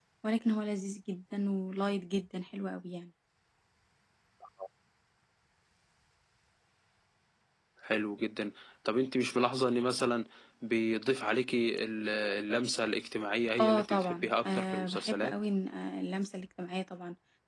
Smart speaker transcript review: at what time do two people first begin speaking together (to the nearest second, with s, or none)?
14 s